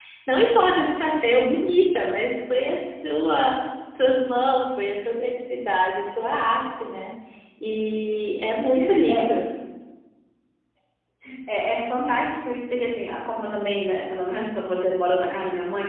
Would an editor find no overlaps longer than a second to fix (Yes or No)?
Yes